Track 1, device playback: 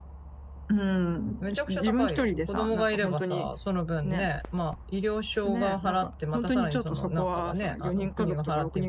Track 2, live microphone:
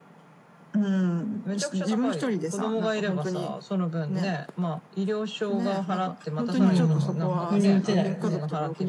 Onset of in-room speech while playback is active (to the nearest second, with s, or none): 7 s